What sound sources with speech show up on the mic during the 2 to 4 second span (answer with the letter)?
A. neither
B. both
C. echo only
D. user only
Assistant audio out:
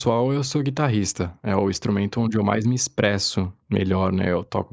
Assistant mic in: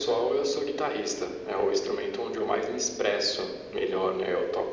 C